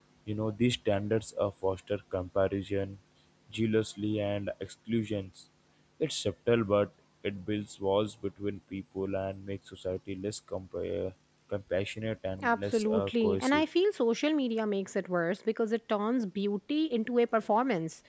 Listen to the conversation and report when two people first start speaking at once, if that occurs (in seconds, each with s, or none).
12.4 s